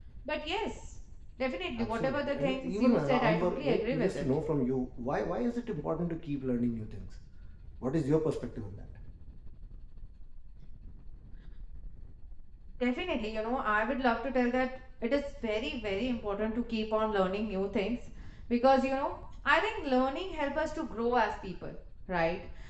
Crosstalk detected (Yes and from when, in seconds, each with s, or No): Yes, from 1.8 s